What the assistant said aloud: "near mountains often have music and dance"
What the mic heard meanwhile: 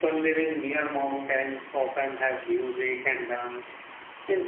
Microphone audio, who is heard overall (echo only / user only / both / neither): echo only